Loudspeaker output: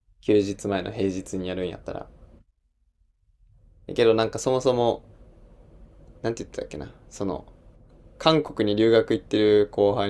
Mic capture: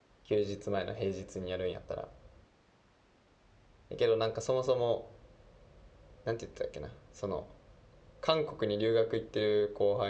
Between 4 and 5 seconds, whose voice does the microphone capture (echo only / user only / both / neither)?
echo only